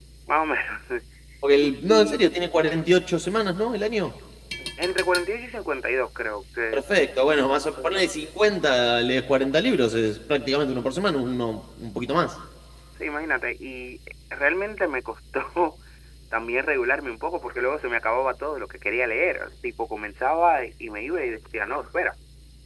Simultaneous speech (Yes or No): Yes